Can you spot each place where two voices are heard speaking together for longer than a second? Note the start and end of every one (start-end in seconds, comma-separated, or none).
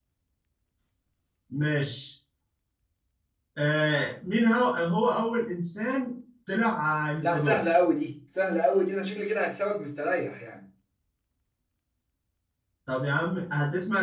none